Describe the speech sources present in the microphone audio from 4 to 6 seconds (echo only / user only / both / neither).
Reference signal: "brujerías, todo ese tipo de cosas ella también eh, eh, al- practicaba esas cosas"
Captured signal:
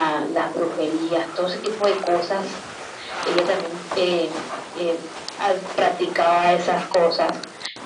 echo only